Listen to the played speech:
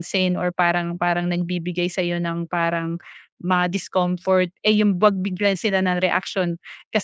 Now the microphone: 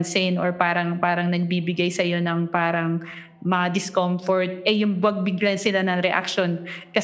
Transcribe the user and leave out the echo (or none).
none